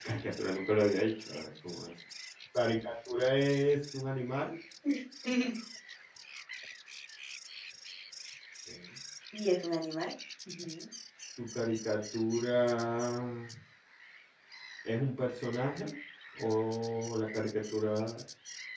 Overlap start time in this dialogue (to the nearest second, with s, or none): none